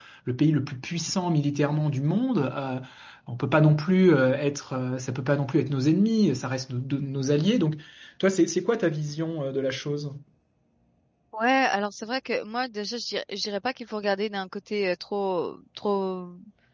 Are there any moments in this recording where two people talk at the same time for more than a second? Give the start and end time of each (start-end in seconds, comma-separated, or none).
none